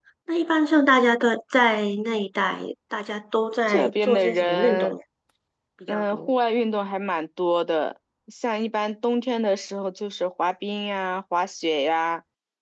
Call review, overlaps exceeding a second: present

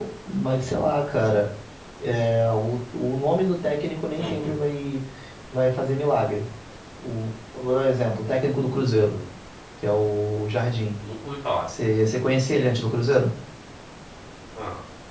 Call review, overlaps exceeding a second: none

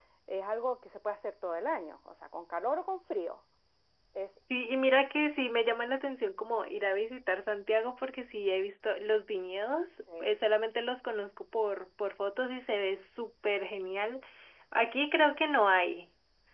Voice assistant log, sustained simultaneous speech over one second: none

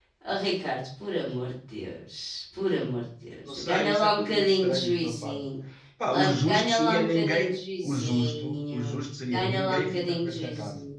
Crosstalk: present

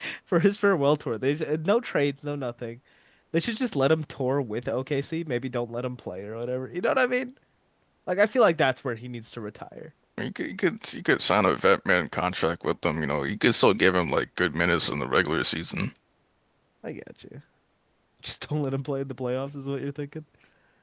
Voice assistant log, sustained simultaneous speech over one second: none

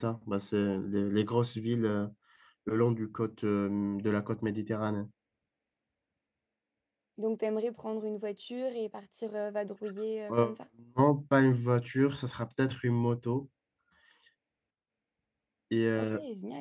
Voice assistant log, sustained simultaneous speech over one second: none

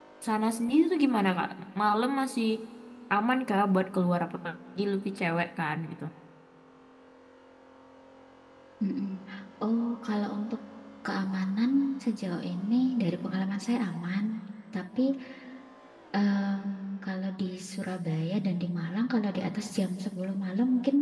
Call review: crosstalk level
none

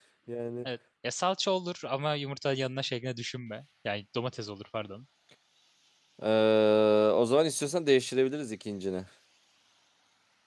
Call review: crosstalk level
none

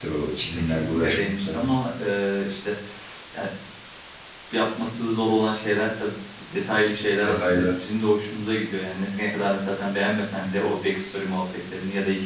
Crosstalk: present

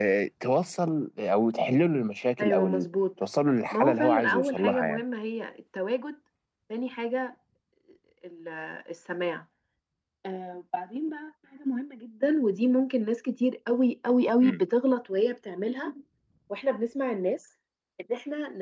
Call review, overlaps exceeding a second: present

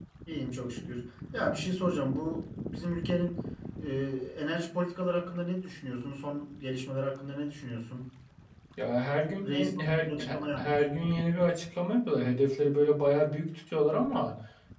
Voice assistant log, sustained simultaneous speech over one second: present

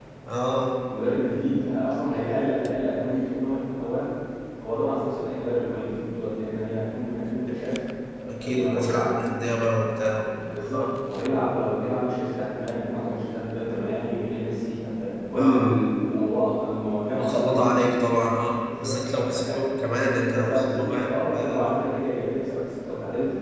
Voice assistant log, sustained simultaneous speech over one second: present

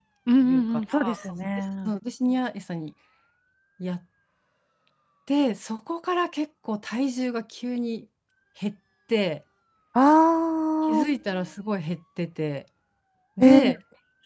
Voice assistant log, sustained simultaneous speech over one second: present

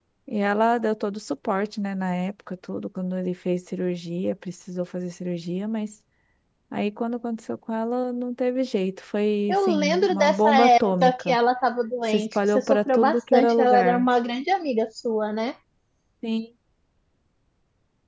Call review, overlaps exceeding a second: present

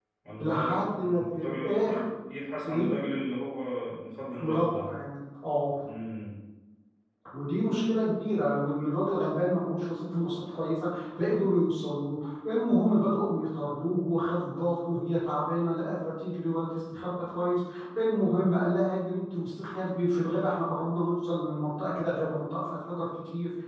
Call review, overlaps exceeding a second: present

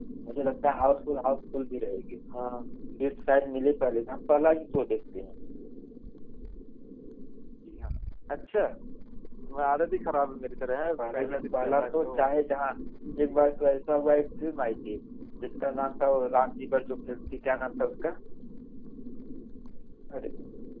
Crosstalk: present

